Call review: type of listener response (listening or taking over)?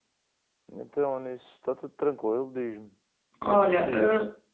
taking over